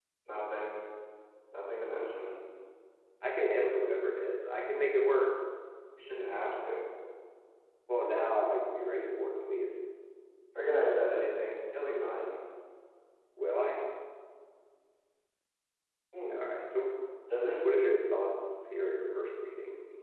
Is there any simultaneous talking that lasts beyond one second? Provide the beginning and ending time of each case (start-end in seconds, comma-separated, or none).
none